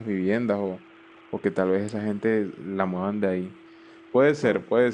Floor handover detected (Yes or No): No